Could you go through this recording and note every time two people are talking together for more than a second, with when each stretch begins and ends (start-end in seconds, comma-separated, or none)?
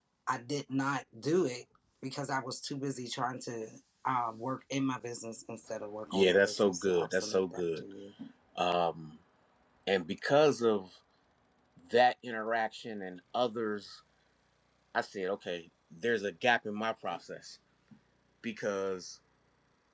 6.1-7.8